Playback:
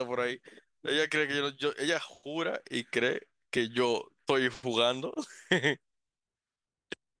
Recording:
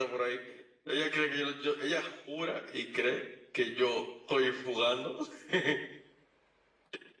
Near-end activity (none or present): none